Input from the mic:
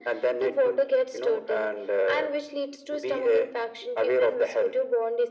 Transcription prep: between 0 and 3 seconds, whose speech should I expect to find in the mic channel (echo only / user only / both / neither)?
echo only